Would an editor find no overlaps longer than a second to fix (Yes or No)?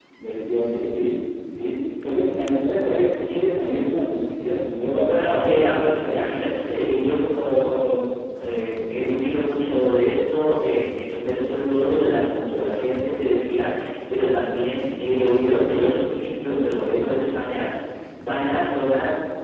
No